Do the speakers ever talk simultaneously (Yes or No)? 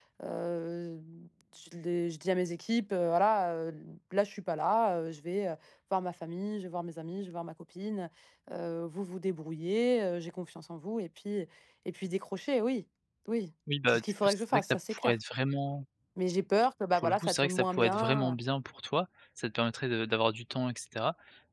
Yes